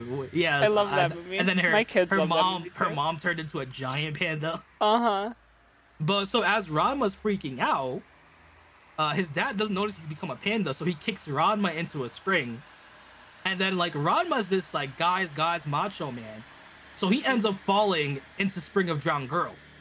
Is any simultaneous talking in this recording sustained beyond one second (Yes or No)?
Yes